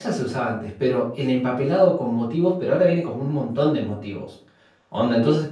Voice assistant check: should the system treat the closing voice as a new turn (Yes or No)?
No